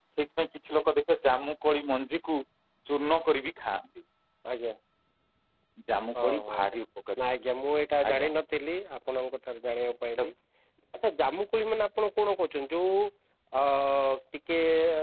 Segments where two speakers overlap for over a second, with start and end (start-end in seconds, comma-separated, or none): none